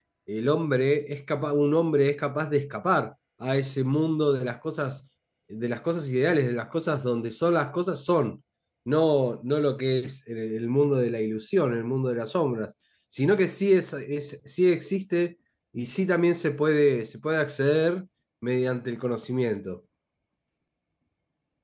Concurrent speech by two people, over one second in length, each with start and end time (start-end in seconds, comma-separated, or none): none